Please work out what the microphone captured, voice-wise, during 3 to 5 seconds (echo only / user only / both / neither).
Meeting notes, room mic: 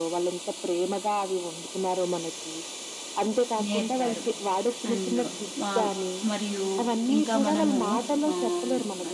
both